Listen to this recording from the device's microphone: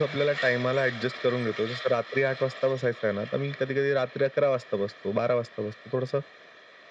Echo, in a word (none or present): present